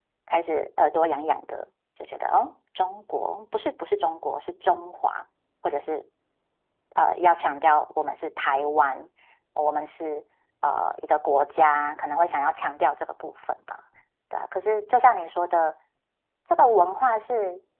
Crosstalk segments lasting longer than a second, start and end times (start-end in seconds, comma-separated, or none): none